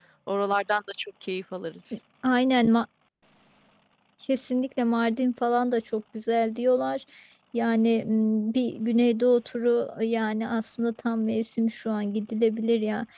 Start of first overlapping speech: none

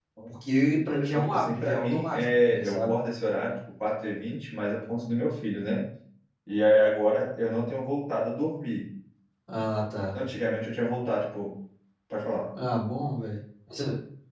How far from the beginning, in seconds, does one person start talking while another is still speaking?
1 s

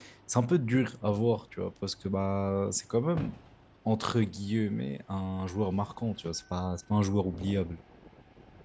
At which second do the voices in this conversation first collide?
none

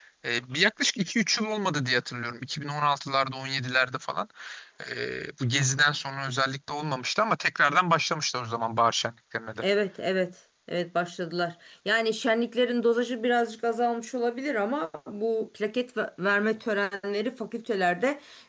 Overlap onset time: none

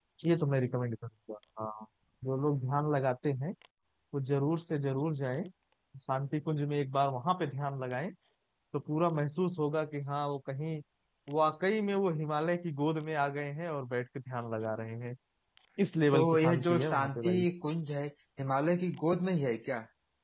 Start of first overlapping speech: 16 s

